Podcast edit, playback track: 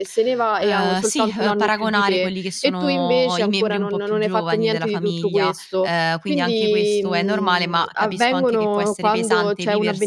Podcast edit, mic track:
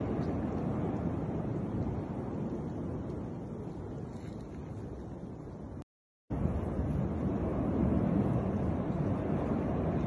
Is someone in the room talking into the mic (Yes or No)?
No